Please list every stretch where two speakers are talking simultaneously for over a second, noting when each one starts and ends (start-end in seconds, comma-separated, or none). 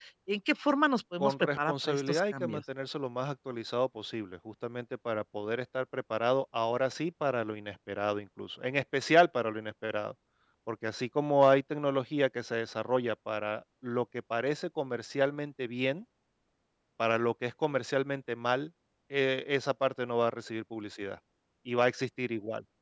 1.2-2.6